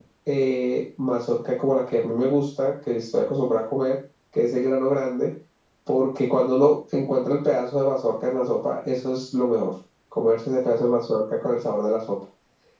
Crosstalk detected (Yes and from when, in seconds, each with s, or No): No